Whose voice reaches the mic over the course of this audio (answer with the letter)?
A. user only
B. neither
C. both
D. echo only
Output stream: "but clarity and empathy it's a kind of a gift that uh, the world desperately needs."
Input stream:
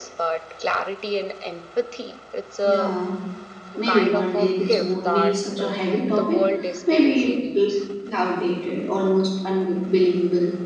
C